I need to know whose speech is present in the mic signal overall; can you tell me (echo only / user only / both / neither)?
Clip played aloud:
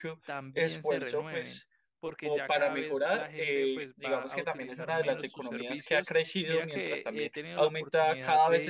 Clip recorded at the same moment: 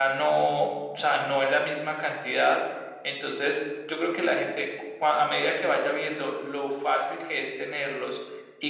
user only